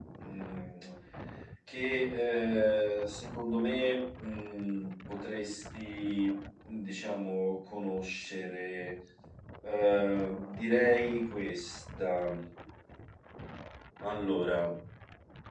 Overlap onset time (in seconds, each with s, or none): none